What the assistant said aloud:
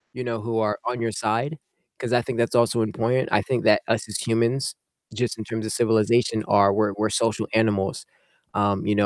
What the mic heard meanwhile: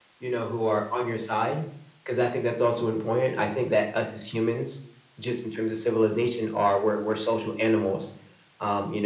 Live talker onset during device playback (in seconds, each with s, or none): none